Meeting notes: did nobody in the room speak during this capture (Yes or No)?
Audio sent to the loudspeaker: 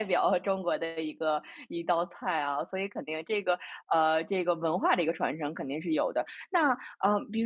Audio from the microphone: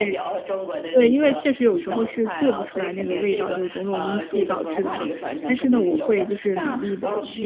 No